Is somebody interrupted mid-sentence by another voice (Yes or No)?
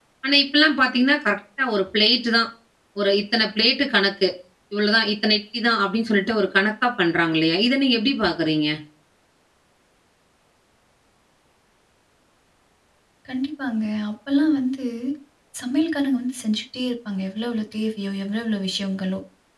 No